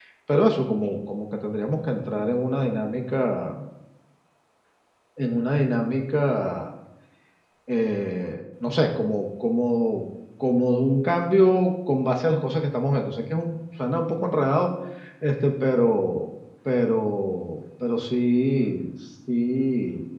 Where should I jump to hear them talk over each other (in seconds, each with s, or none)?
none